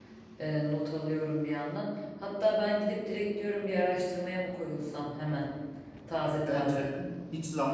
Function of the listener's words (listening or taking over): taking over